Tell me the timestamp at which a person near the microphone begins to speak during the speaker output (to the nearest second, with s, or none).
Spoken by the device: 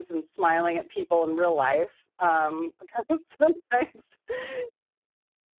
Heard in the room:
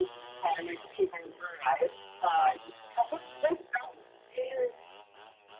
2 s